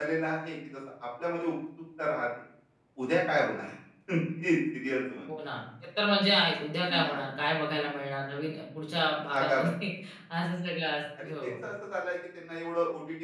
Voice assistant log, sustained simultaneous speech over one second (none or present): none